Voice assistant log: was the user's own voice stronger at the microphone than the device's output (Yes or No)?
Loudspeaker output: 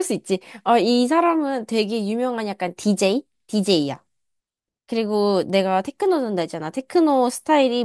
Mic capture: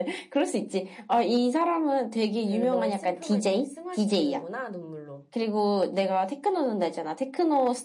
No